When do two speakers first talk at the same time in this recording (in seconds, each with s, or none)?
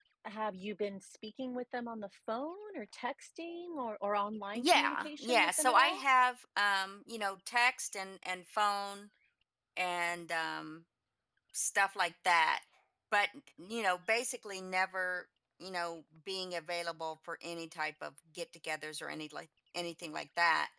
4.5 s